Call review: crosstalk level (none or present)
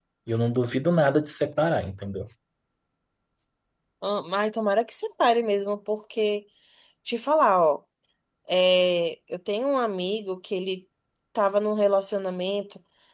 none